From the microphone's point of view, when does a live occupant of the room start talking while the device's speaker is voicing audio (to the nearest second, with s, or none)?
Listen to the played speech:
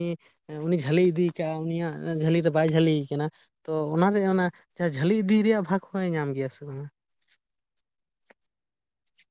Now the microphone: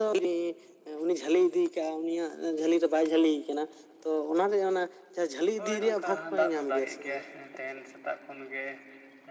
6 s